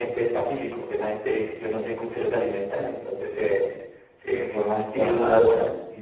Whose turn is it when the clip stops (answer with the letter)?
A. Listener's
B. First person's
B